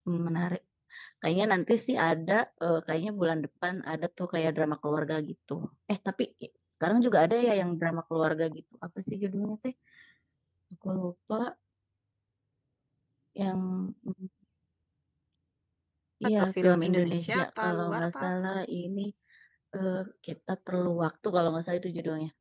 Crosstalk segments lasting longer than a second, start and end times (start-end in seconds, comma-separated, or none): 16.4-18.3